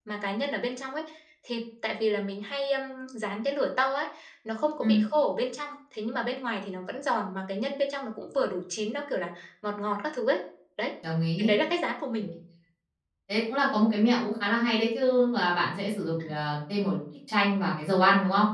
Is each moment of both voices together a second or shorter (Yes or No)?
Yes